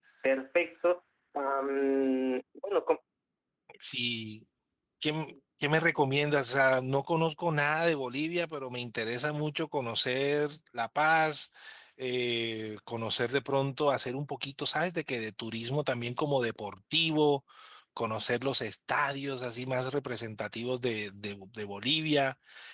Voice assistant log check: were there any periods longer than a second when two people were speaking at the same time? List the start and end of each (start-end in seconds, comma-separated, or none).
none